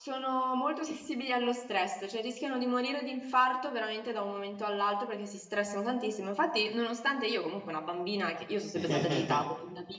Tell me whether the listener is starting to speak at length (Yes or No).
No